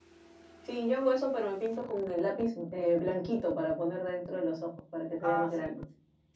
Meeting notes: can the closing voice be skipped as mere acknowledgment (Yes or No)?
No